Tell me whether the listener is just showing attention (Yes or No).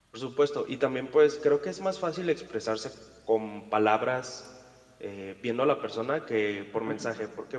Yes